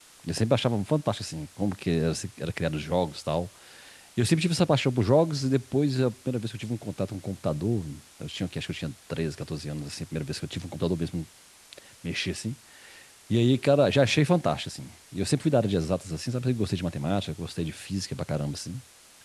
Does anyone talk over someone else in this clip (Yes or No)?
No